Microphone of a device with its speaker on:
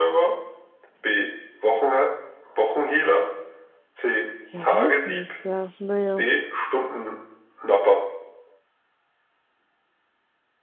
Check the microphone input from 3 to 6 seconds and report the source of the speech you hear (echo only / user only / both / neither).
both